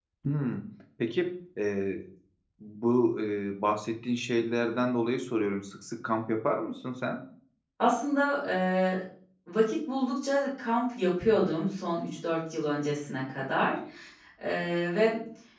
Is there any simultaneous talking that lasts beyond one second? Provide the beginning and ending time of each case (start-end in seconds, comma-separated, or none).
none